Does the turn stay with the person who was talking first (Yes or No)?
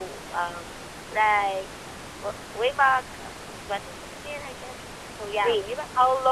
No